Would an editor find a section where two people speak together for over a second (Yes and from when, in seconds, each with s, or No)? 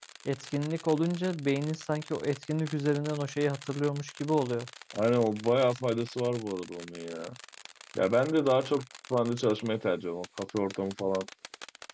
No